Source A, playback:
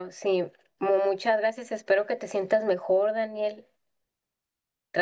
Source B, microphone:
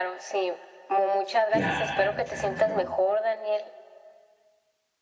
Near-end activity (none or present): present